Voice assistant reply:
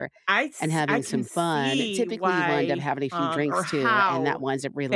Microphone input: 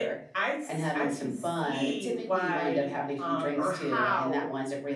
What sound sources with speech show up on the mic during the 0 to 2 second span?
echo only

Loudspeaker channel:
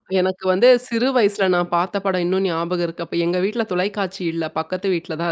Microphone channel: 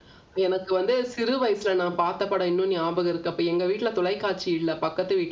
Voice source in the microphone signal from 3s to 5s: echo only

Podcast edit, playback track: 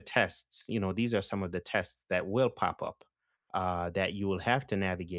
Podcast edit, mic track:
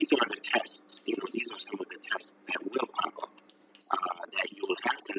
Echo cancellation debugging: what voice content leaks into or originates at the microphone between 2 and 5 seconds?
echo only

